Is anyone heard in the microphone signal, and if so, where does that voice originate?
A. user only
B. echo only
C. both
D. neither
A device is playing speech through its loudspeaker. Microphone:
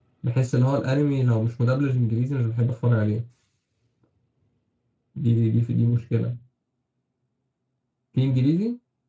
A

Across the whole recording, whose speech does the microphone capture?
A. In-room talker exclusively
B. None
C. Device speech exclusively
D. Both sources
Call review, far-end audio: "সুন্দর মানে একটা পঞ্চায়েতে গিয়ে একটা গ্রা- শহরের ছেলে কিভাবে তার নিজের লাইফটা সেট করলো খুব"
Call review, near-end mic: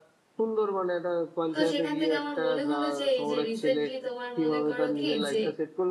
D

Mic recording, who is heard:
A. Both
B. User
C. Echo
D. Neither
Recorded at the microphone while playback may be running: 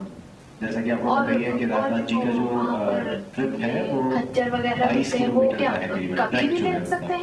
A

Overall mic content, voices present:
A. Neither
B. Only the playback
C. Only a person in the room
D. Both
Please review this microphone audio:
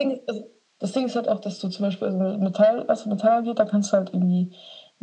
B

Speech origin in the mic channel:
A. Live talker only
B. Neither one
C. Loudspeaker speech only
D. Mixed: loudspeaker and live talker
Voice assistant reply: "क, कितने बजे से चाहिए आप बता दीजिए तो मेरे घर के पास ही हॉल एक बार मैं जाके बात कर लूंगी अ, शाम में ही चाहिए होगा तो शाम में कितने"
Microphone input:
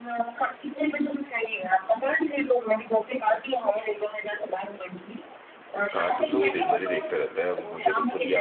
D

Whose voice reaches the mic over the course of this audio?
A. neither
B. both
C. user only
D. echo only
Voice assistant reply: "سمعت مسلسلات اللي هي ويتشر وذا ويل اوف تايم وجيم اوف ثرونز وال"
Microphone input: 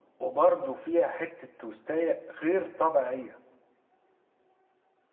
C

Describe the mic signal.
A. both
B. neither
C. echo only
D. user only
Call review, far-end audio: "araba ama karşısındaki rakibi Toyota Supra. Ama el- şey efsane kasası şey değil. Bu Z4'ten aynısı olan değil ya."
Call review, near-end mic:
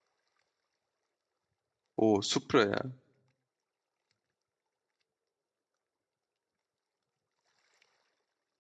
D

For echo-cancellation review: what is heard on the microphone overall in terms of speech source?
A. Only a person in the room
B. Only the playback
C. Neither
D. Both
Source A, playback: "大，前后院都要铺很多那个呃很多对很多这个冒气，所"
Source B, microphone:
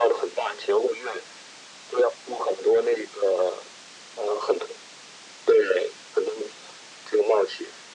B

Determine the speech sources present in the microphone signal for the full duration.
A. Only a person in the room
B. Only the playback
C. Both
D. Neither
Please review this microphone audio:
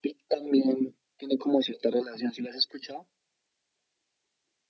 B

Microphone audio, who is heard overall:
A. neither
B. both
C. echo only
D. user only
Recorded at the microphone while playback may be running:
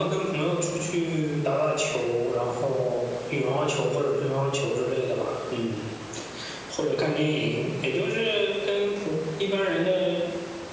C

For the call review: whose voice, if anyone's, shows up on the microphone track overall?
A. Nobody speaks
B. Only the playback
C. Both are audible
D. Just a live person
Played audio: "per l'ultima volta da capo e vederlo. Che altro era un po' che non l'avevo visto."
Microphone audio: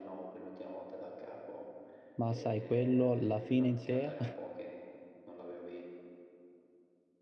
C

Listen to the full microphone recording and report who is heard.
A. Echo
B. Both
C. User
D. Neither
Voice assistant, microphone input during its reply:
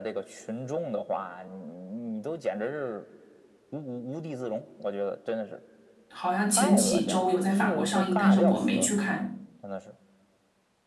B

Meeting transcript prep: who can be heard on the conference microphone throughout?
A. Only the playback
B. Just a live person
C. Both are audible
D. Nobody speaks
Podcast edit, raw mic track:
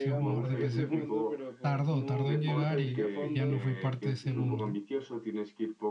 C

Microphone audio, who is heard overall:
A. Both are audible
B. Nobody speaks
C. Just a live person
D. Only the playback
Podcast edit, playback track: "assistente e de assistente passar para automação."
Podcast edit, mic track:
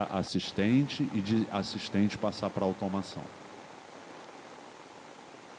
D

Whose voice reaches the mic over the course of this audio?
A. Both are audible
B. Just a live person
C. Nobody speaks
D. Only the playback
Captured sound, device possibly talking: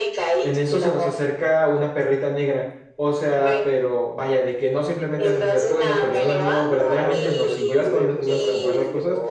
A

